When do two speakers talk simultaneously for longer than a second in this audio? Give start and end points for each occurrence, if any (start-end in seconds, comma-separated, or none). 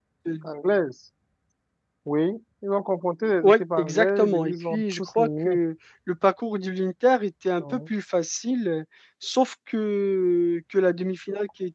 3.4-5.6